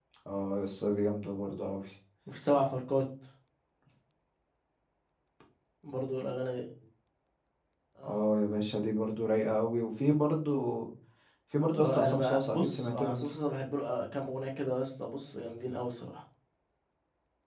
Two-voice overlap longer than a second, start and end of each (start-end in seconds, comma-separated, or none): 11.8-13.3